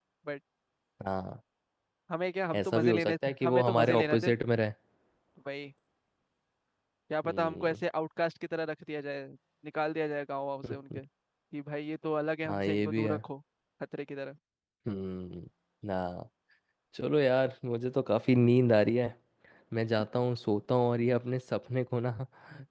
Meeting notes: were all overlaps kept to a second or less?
No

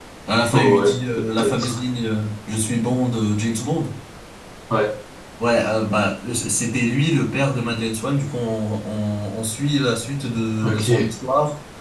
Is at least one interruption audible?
Yes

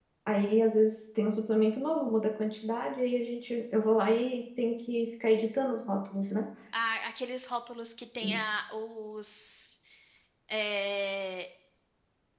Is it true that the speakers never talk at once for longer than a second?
Yes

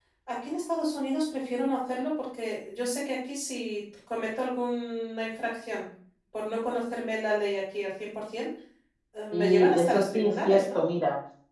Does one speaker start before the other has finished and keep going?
Yes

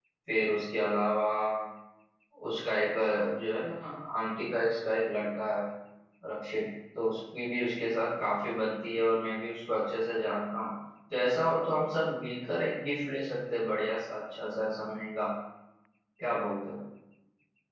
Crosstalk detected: No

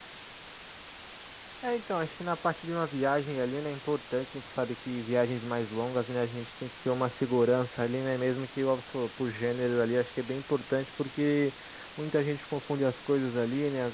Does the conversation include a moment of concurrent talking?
No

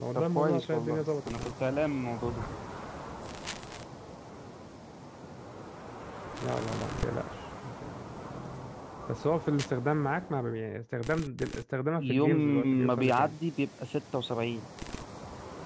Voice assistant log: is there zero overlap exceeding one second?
No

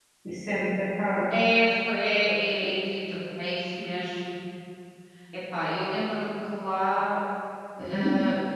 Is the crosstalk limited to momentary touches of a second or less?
Yes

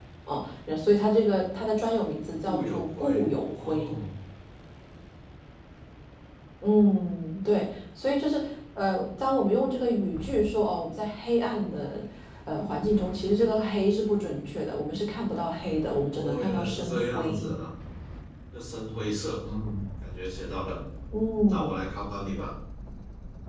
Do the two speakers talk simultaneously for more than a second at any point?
Yes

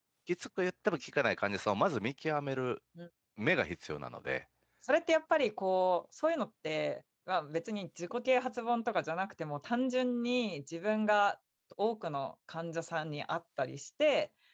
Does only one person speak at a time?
Yes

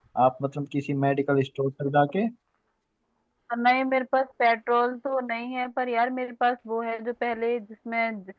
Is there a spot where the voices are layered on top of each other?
No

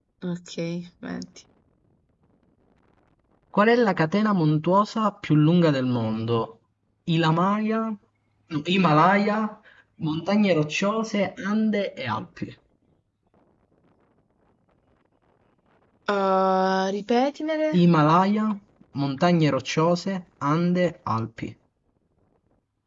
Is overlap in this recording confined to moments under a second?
Yes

